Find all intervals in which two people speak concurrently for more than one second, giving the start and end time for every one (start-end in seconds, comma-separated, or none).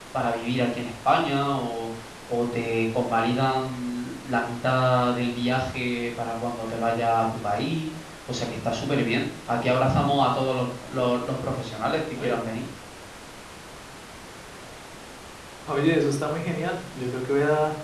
none